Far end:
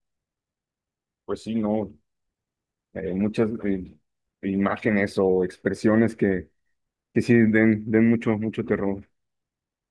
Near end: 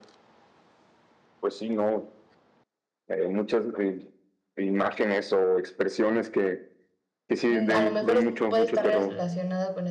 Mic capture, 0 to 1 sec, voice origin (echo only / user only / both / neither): neither